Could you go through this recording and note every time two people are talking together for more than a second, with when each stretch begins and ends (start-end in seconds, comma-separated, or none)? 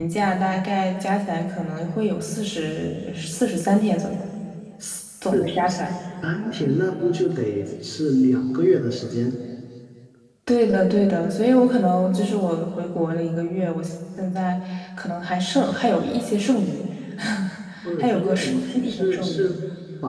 18.0-19.5